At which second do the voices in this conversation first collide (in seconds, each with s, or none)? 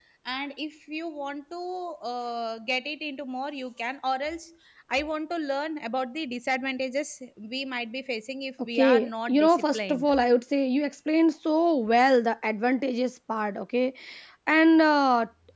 8.6 s